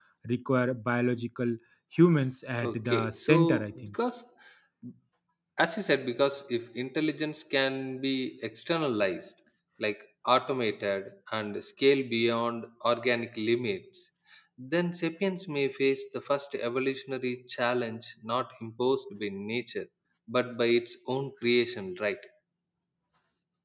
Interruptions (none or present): present